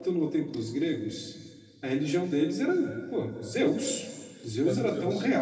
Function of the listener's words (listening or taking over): listening